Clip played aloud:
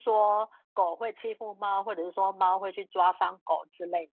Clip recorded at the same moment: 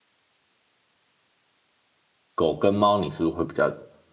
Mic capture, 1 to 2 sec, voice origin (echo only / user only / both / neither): neither